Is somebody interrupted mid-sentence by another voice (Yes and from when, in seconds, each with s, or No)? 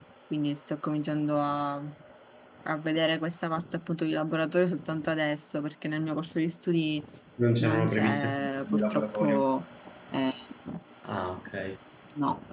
Yes, from 7.6 s